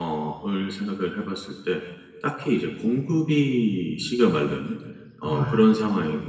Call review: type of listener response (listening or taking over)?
listening